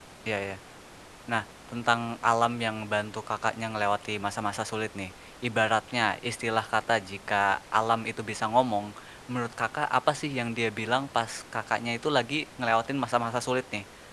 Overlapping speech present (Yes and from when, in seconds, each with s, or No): No